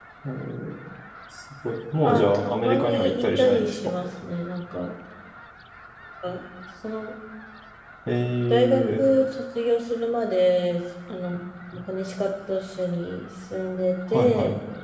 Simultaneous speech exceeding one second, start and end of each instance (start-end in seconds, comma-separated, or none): 2.0-3.9